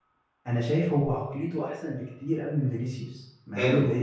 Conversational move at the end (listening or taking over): taking over